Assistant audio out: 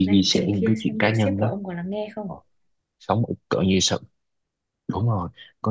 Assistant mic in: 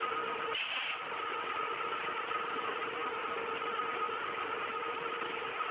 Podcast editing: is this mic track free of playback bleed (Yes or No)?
Yes